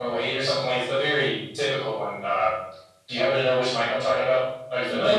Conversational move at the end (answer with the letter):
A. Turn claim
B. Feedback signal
A